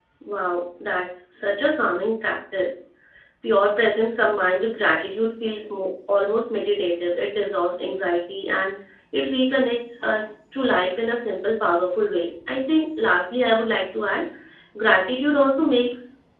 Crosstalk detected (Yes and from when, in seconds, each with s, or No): No